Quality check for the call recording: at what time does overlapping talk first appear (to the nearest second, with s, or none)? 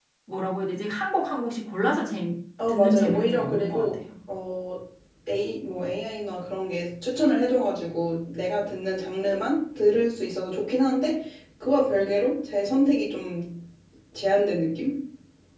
3 s